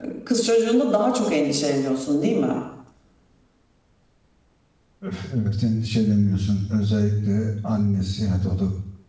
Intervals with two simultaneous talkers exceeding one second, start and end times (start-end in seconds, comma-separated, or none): none